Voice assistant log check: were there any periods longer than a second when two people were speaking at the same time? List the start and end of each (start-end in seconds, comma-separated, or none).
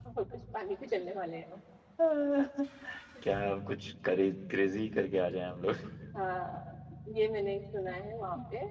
none